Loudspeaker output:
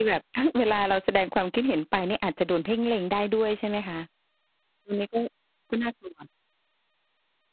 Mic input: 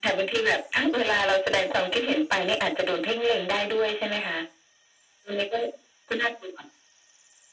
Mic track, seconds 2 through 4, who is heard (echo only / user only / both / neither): echo only